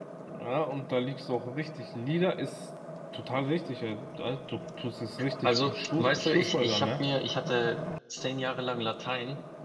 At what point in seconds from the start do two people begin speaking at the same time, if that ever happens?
5.4 s

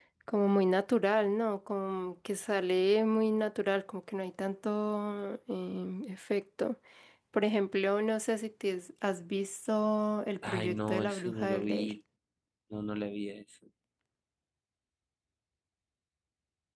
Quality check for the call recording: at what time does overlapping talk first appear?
10.4 s

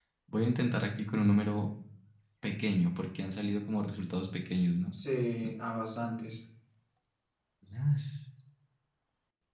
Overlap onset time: none

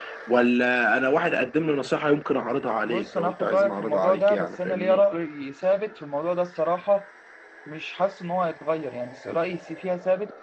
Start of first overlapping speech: 2.8 s

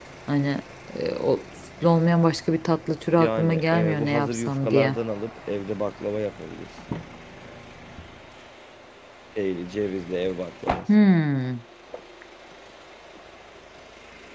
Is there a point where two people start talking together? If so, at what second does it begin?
3.1 s

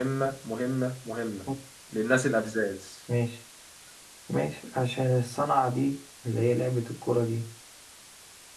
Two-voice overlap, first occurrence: none

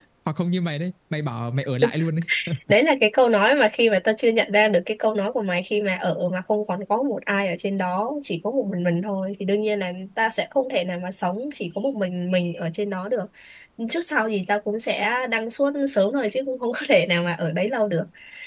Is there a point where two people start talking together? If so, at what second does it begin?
none

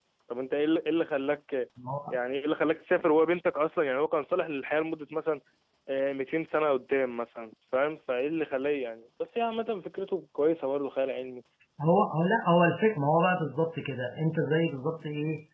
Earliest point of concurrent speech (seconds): none

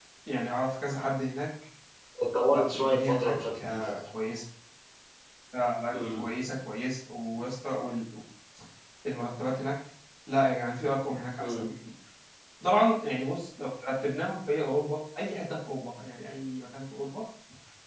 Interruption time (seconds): 2.5 s

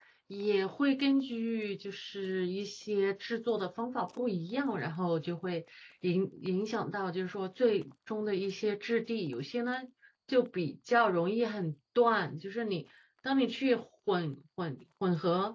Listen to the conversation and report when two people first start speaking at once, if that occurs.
none

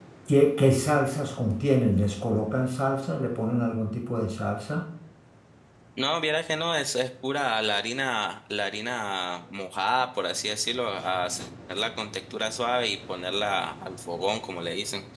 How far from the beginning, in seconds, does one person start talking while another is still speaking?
none

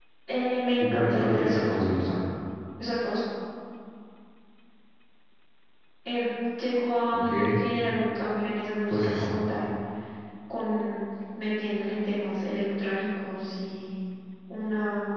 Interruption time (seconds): 0.8 s

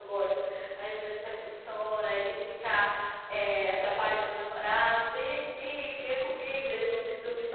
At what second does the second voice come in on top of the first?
none

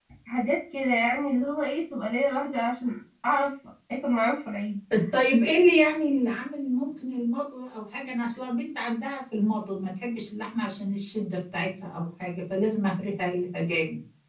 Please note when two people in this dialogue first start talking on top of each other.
none

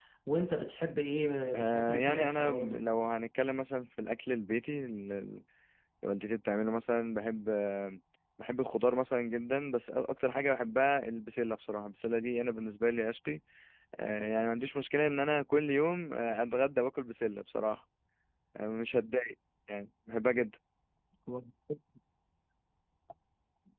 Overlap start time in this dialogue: 1.5 s

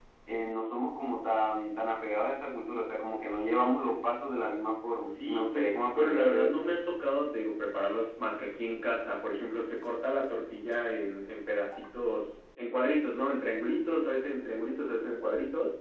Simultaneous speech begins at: 5.0 s

